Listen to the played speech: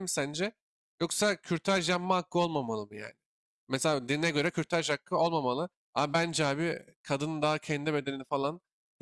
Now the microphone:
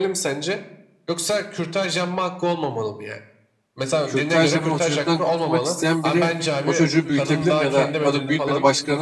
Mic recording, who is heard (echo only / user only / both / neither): both